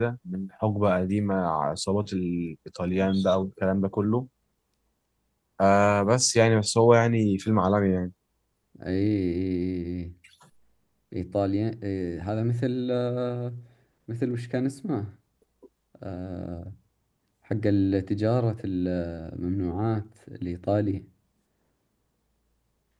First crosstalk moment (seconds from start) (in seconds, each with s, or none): none